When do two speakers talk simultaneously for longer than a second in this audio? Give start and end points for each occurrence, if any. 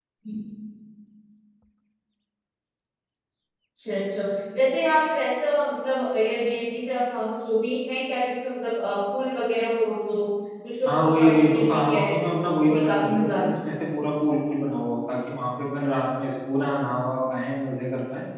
10.8-13.5

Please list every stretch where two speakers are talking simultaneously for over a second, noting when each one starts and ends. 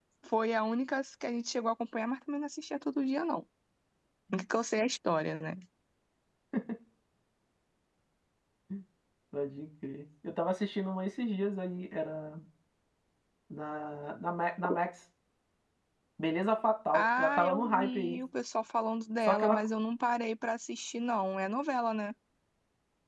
16.9-18.2

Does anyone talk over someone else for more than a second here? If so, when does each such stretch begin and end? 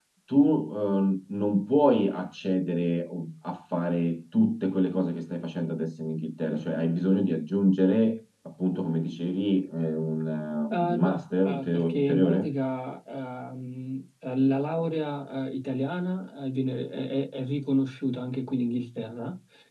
10.7-12.5

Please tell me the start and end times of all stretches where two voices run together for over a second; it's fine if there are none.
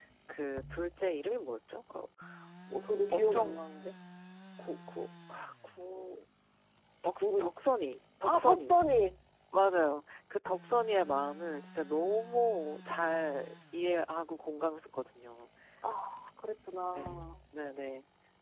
none

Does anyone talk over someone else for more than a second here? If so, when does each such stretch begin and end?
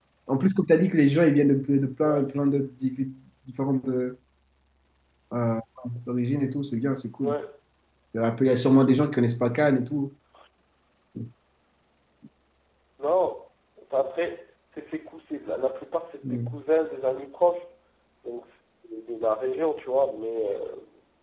none

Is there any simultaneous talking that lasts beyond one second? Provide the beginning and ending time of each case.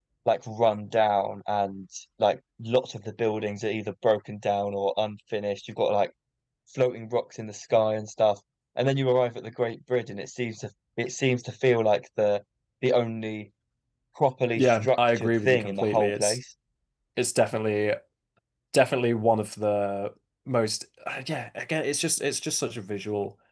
14.6-16.4

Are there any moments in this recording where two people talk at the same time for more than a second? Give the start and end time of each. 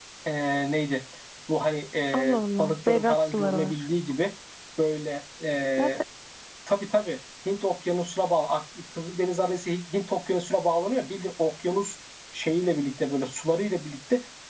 2.1-3.8

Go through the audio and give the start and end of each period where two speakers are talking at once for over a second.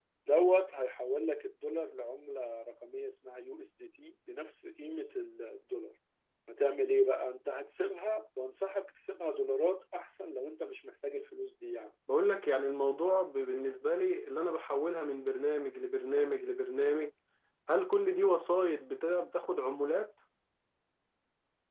none

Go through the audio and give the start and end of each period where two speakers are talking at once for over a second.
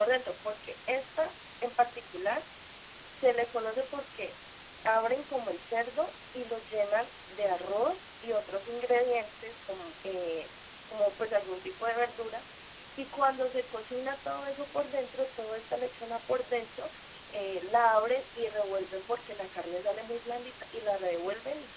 none

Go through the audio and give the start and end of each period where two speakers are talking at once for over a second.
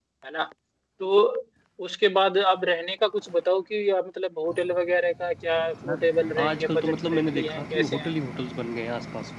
6.4-8.1

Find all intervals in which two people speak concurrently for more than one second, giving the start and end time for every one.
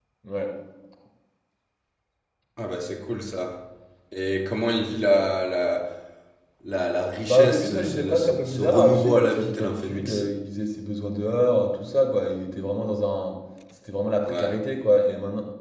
7.2-10.2

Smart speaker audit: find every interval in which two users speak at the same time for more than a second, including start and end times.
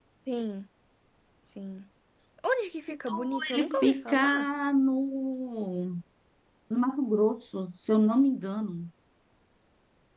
3.1-4.5

